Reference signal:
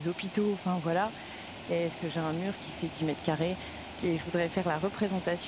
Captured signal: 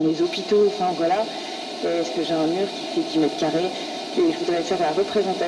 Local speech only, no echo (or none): none